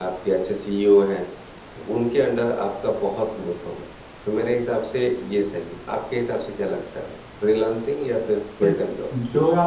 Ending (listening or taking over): taking over